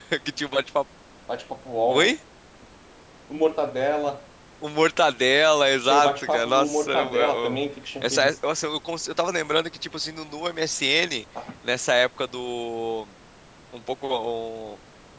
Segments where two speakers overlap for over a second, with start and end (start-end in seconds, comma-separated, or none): 5.8-7.6